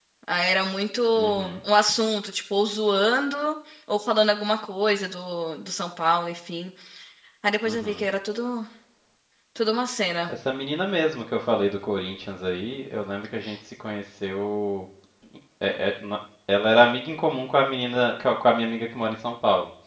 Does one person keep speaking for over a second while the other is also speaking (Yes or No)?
No